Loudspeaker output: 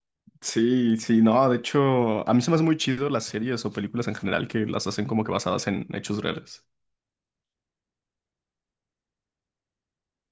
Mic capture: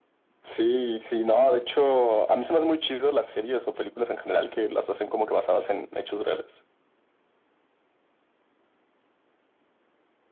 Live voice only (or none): none